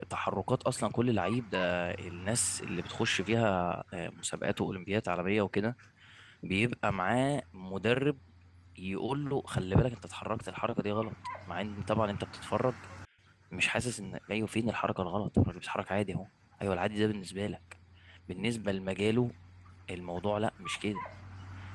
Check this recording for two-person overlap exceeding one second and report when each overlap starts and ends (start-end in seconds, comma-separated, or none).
none